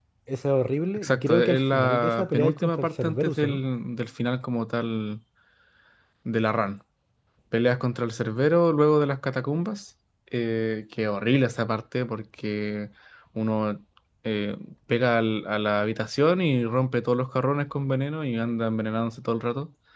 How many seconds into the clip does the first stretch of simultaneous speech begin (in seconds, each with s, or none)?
0.9 s